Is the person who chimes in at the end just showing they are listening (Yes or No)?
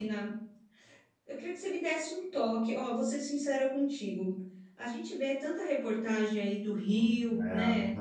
Yes